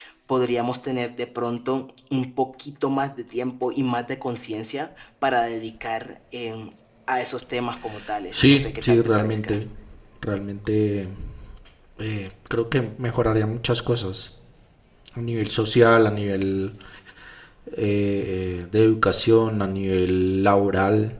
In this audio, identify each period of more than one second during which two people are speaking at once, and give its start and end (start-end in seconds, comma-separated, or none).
8.3-9.6